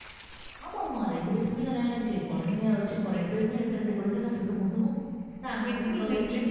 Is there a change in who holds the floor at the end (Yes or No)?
Yes